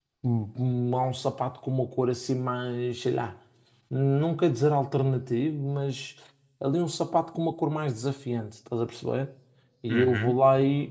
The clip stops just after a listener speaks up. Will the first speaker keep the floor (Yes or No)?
Yes